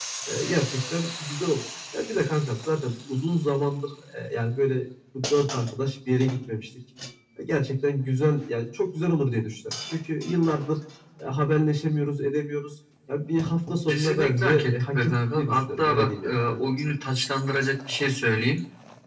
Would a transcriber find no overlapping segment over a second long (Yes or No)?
No